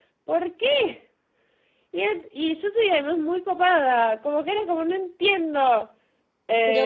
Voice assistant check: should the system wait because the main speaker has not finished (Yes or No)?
No